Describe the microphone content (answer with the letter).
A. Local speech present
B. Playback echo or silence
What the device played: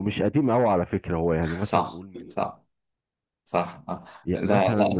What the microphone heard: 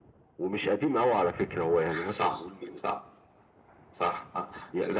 B